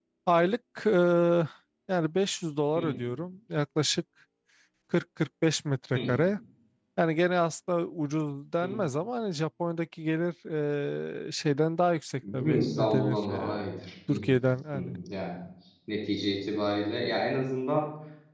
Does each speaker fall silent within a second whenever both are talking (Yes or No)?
No